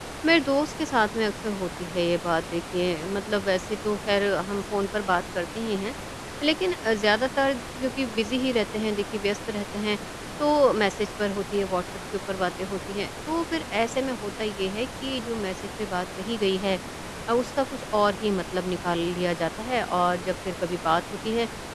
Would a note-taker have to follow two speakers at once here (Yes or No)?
No